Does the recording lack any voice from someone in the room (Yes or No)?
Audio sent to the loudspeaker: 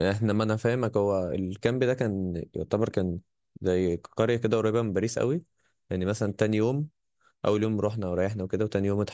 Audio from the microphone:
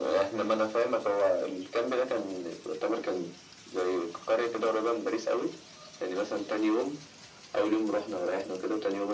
Yes